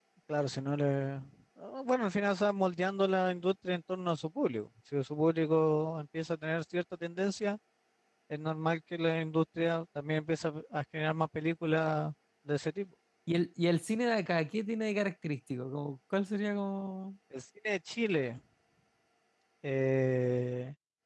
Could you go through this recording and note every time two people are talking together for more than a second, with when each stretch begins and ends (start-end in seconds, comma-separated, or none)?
none